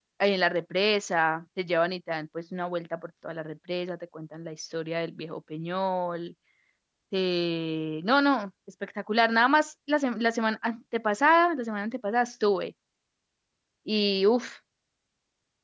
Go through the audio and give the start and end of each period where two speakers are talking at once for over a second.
none

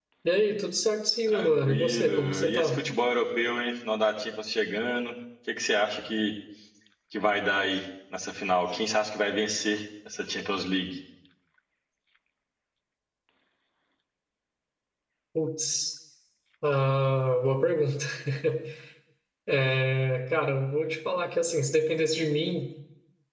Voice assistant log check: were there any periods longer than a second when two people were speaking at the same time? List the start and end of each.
1.3-2.8

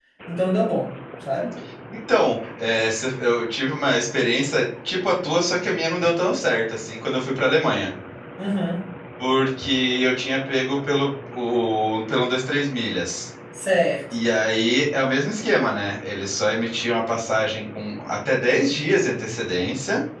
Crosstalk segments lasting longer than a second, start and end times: none

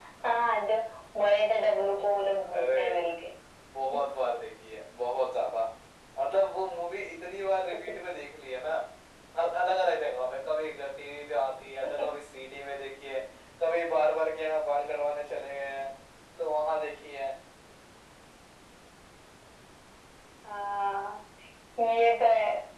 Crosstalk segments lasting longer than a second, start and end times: 1.2-3.0

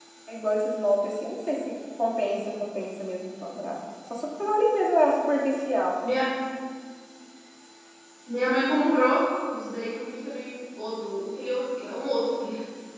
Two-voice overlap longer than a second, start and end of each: none

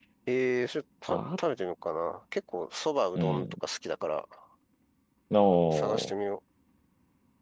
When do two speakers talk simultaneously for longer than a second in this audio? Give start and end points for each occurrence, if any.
none

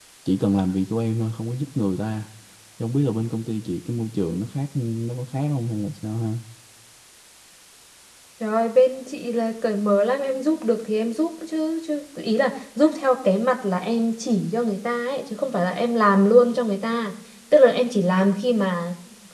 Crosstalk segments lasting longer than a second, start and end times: none

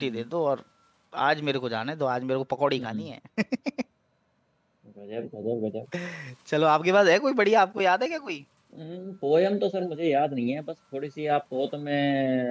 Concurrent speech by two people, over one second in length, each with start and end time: none

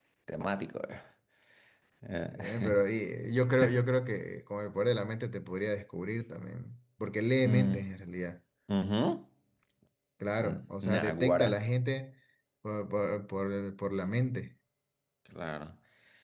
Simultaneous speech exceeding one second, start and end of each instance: 10.4-11.6

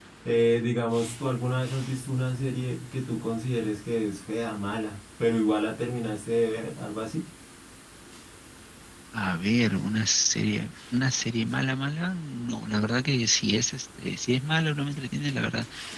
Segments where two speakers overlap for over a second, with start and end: none

